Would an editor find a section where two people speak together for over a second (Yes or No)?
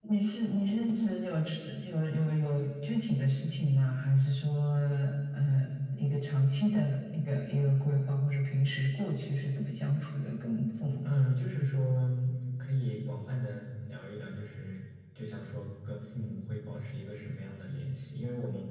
No